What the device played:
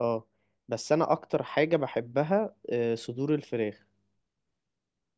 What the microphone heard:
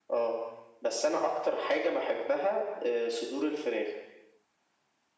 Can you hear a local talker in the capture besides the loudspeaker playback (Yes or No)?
No